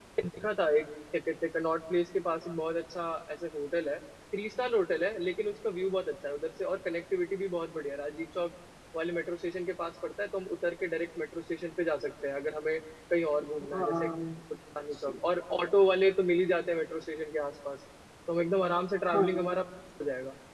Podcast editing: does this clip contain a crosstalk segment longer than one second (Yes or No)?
No